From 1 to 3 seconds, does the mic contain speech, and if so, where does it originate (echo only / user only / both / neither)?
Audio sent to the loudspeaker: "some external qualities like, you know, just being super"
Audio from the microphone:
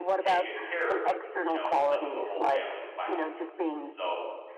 both